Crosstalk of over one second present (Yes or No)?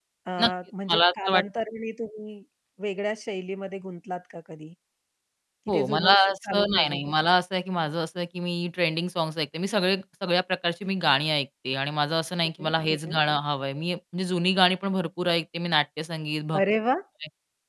Yes